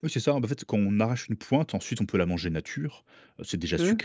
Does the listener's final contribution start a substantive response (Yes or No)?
No